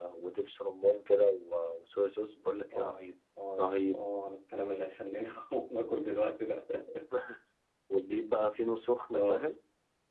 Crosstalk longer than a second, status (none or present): none